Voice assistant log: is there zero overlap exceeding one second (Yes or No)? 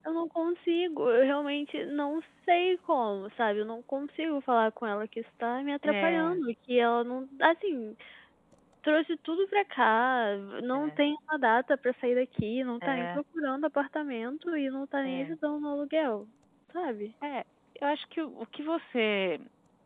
Yes